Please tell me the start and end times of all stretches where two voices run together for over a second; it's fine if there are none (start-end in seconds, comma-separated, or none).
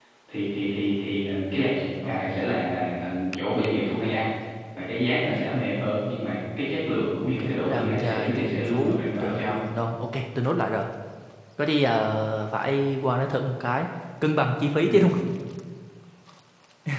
7.2-9.6